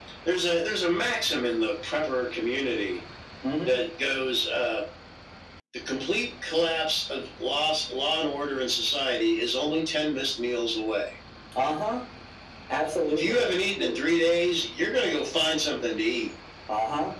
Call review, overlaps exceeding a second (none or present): none